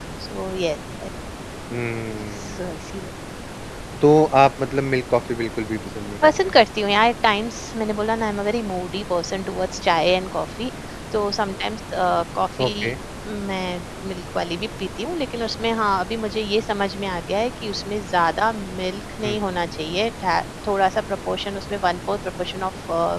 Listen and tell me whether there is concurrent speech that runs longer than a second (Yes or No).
No